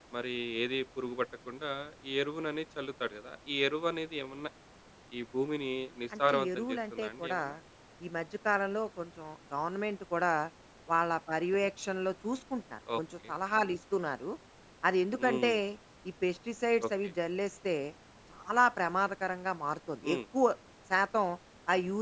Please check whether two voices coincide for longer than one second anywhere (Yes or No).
Yes